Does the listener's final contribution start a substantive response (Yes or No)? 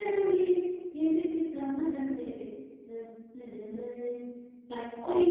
No